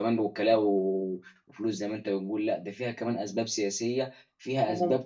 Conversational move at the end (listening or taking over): listening